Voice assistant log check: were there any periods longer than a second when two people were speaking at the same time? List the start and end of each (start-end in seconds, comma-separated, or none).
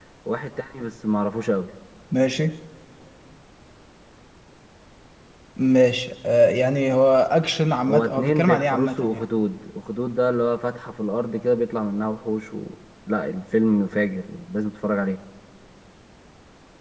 7.9-9.3